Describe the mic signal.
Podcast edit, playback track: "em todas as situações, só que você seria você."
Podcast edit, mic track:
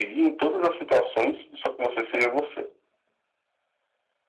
echo only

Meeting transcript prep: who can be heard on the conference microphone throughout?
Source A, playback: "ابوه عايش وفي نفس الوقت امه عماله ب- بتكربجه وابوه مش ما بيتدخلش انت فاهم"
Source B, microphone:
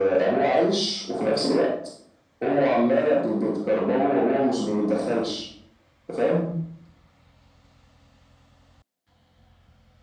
echo only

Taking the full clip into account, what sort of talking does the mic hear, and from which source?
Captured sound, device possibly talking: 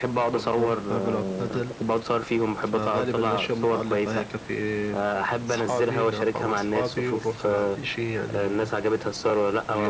echo only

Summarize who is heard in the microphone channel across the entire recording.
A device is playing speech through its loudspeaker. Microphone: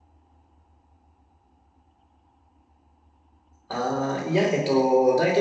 user only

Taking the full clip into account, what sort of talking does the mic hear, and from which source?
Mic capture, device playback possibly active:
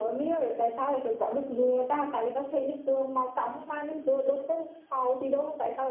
echo only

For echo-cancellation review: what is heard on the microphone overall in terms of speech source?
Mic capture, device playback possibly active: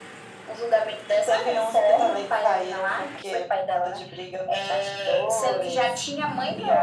echo only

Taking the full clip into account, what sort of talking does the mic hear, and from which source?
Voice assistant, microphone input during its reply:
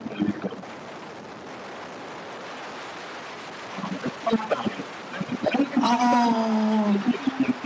both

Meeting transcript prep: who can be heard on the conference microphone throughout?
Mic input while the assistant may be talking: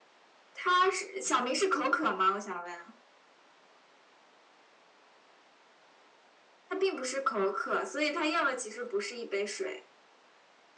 echo only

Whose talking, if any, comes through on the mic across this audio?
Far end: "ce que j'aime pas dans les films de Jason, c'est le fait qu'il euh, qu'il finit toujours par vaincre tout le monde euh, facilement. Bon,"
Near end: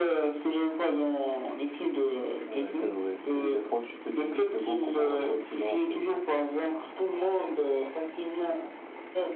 both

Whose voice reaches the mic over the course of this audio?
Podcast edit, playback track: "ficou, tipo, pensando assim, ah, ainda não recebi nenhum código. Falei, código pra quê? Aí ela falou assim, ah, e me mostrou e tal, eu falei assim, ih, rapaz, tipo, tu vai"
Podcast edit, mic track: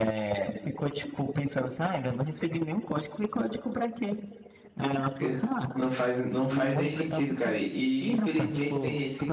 both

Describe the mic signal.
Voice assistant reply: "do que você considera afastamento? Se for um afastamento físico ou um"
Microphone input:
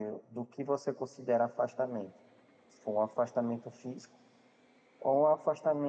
echo only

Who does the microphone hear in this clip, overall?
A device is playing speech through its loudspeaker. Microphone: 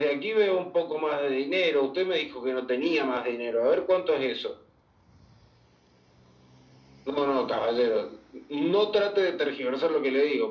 echo only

